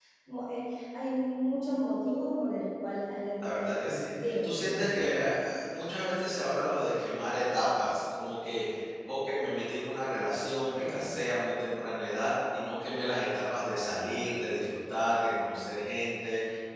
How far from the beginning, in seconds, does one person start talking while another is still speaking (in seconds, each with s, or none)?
3.5 s